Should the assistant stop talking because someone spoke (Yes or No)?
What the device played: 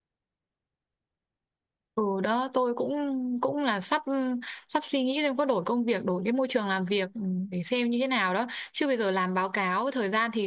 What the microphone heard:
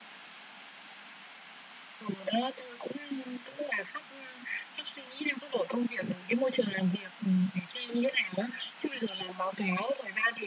No